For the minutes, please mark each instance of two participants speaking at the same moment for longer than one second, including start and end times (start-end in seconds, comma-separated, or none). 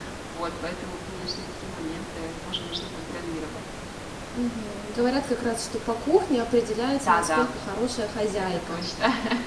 none